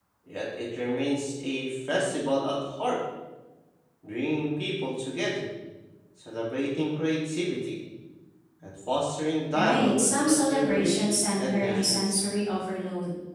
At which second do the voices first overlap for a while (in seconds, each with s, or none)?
9.5 s